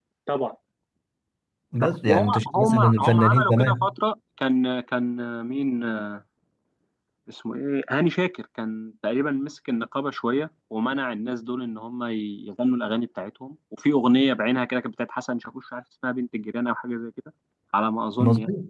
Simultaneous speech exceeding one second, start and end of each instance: 1.8-3.9

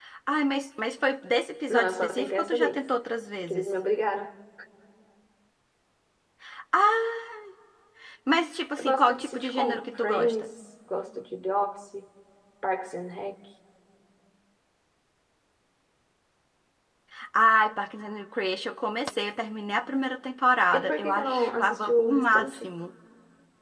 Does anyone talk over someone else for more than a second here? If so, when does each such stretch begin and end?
1.7-2.9, 8.8-10.4, 20.8-22.7

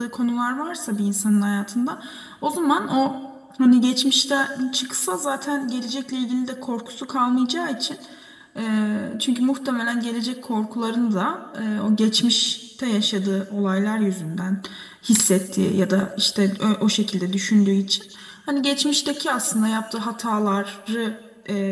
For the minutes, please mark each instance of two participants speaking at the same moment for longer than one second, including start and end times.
none

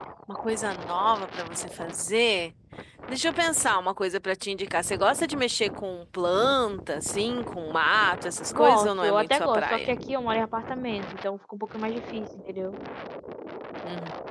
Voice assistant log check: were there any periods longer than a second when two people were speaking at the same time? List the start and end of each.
8.5-9.9

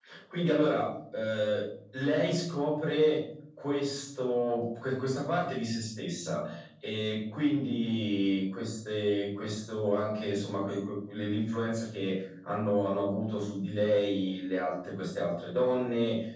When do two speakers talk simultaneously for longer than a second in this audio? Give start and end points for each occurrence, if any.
none

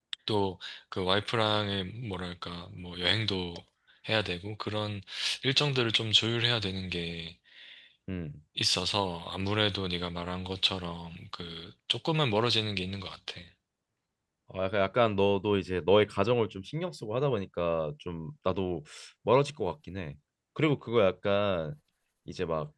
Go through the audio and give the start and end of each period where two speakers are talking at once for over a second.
none

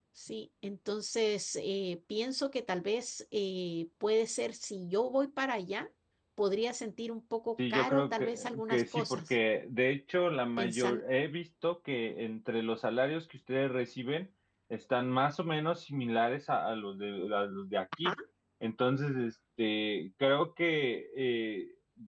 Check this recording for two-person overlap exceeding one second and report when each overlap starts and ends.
7.7-9.3

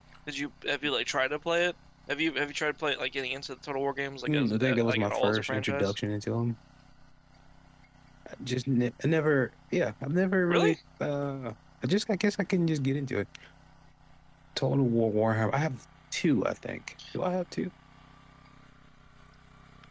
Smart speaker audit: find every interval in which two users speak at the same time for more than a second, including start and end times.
4.3-6.0

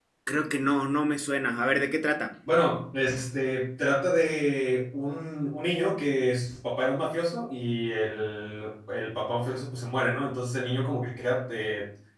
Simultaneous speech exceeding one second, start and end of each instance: none

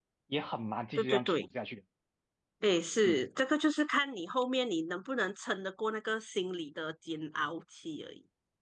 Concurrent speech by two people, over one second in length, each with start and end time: none

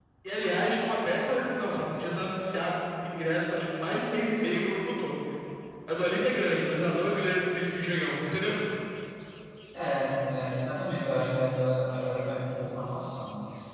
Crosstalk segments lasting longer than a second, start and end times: none

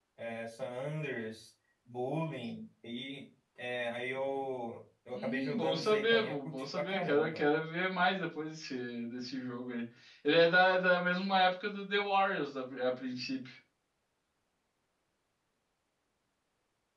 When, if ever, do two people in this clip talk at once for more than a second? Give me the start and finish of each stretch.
5.1-7.4

